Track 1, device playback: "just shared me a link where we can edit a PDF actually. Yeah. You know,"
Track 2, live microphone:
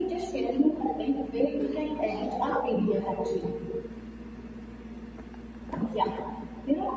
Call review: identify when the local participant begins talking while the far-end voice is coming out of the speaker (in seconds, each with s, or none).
none